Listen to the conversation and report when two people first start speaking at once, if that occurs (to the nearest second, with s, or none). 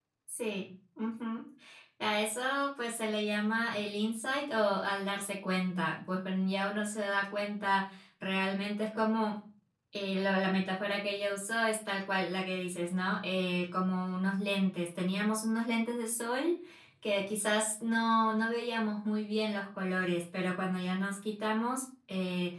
none